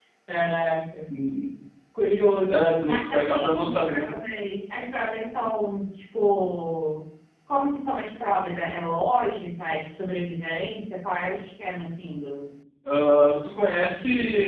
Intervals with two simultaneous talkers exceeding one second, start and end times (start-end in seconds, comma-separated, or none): 2.5-4.1